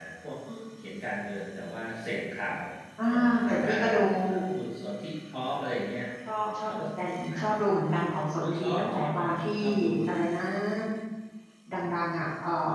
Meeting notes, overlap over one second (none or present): present